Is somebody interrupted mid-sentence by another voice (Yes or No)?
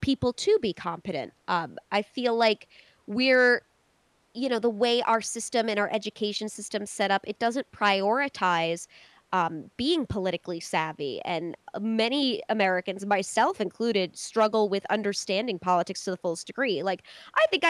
No